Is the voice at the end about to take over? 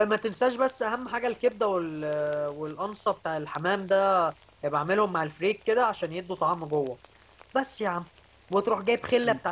No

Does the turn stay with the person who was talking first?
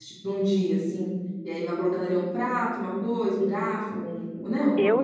No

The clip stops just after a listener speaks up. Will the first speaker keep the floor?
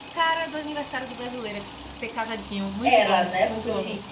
No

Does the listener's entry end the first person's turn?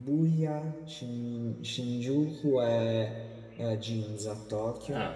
No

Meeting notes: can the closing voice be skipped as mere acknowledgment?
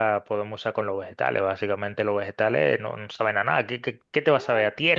No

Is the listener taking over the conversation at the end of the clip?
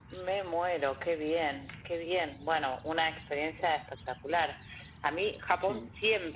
No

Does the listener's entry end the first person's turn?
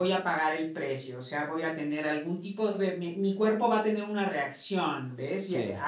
No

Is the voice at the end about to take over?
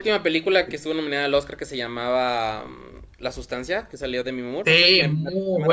Yes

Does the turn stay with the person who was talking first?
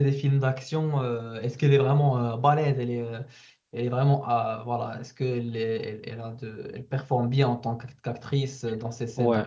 No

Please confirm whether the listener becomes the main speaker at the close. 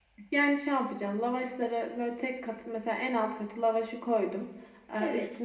No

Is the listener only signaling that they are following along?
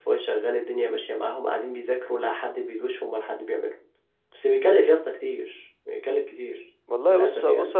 No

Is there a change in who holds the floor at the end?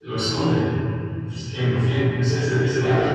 No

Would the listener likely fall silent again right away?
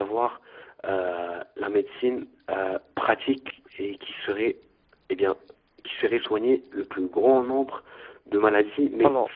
Yes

